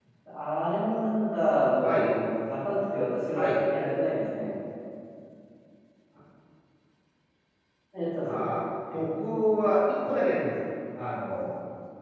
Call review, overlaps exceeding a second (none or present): none